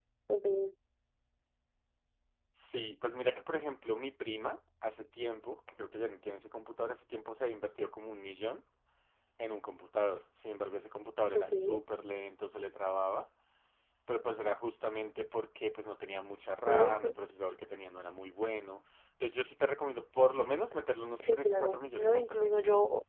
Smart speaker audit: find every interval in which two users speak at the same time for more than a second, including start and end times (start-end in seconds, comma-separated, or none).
21.2-22.5